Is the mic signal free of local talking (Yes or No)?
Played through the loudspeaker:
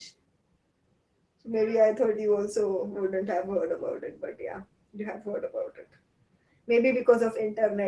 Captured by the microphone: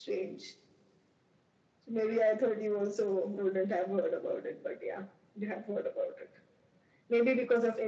Yes